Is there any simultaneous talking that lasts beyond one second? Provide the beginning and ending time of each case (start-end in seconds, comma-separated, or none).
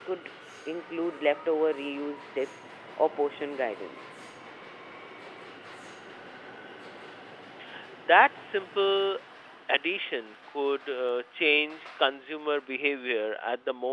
none